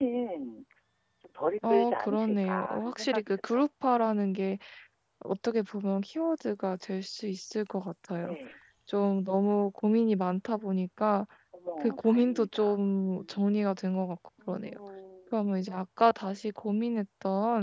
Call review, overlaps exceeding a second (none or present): present